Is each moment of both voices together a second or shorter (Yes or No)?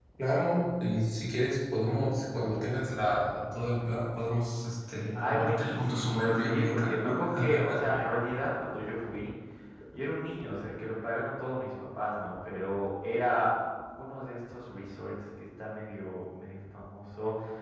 No